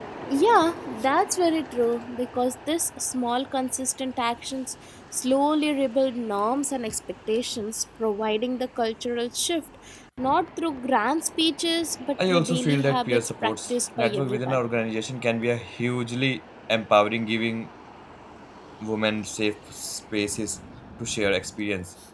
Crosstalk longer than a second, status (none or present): present